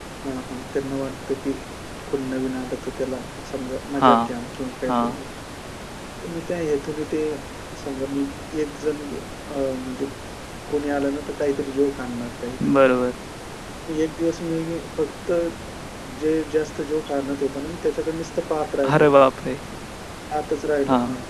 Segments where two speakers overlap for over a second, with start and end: none

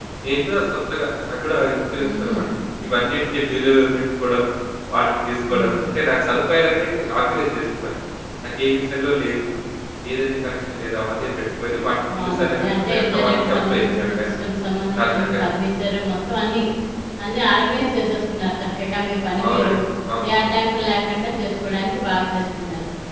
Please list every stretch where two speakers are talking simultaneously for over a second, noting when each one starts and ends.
12.2-14.4

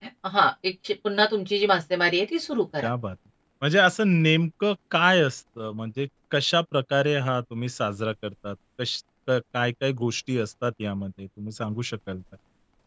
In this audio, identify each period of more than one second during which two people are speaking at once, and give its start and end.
none

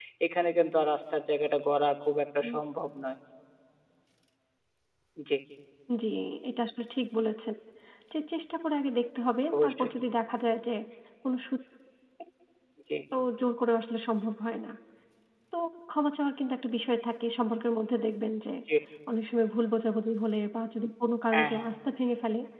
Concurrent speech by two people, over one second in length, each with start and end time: none

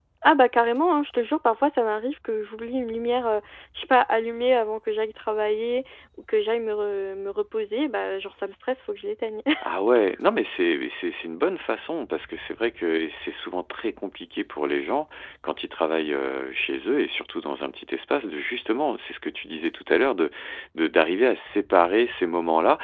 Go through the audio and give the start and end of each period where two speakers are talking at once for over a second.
none

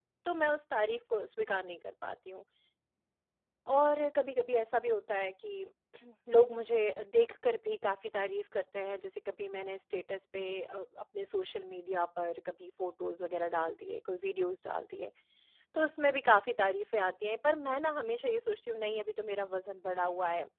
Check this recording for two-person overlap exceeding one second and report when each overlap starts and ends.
none

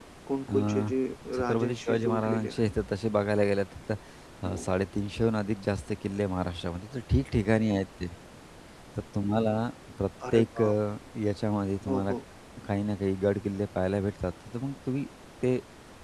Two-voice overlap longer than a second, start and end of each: 1.3-2.7

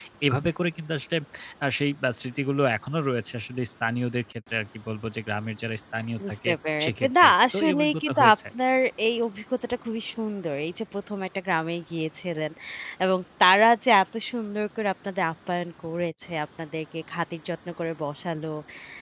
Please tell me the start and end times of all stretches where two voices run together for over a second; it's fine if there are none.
6.3-8.4

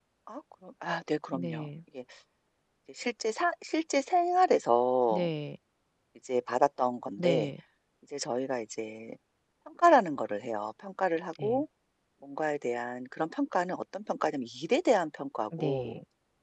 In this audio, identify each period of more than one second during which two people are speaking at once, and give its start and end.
none

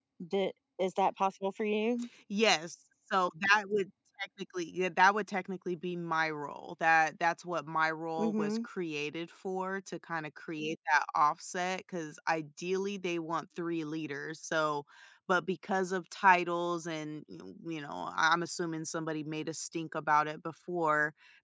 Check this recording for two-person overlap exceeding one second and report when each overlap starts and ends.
none

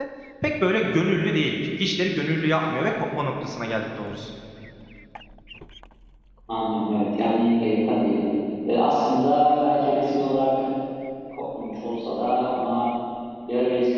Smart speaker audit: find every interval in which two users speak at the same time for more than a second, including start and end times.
none

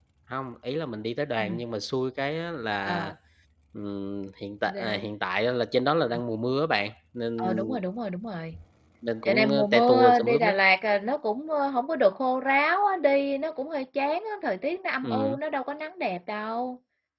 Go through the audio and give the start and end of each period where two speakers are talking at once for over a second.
9.2-10.5

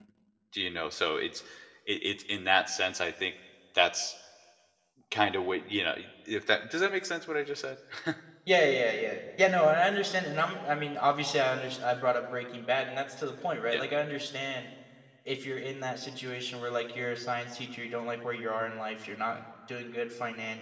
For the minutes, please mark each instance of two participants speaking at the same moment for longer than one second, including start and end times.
none

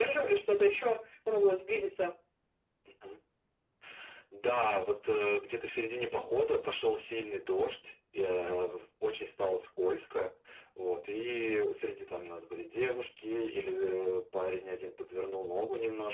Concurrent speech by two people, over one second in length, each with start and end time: none

